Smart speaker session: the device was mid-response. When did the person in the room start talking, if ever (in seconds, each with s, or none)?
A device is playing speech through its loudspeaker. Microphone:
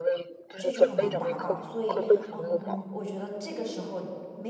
0.5 s